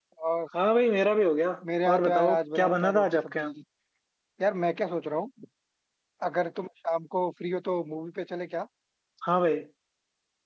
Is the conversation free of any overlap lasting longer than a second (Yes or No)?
No